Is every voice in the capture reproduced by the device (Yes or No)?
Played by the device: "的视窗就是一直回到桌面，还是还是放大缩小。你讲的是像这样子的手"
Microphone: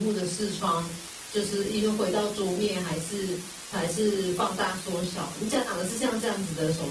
Yes